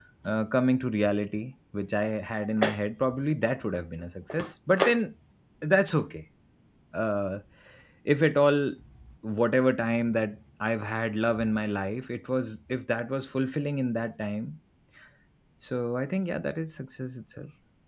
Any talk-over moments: No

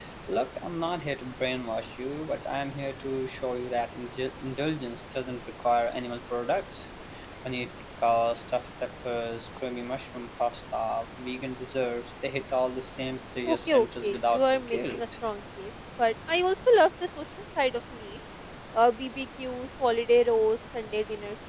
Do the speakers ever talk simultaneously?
Yes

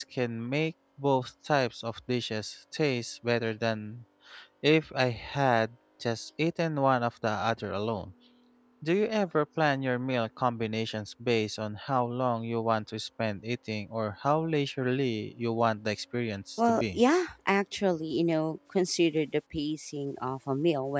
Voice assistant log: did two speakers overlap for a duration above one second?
No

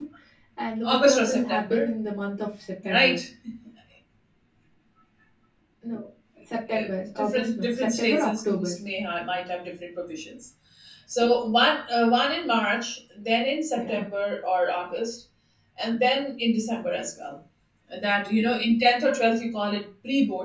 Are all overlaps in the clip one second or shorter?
No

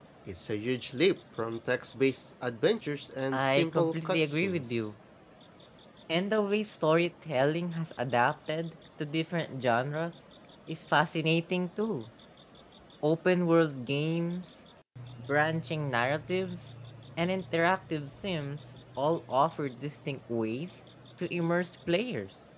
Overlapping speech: Yes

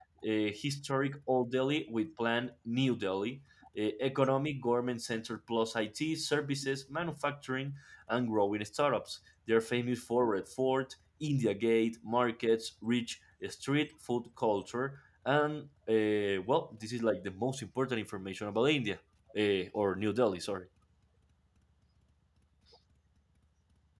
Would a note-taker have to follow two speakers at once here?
No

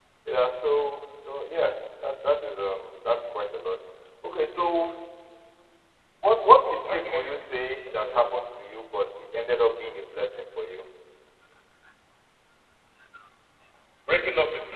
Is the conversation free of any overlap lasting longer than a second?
Yes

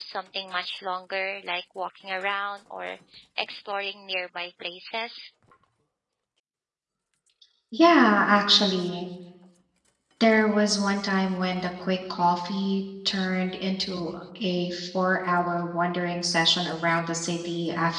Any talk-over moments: No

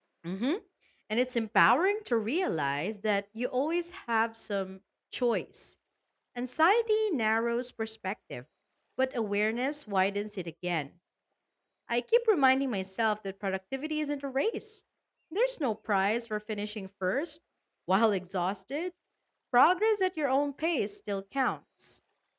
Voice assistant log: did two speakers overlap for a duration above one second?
No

